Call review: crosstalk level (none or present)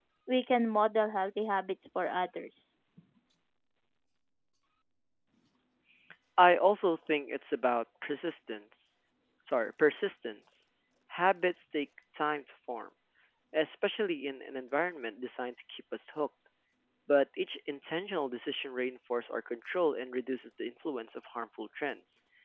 none